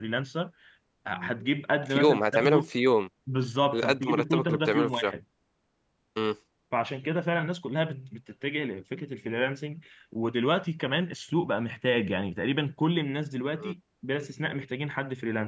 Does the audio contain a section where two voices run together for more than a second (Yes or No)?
Yes